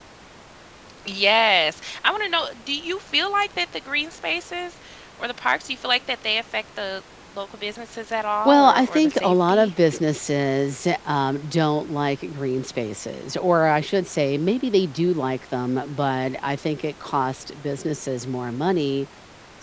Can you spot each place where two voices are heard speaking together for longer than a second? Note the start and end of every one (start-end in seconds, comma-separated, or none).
8.4-9.7